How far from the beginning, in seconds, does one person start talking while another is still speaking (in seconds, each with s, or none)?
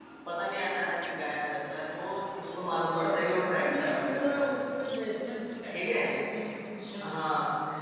2.7 s